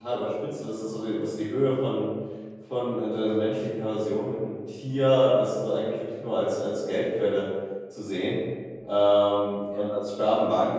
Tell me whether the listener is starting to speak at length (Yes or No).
No